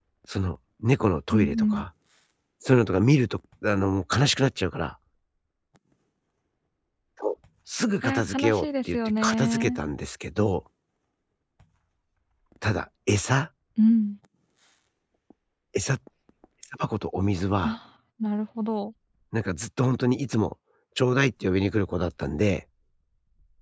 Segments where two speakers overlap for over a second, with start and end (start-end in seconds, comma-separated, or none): 8.0-9.8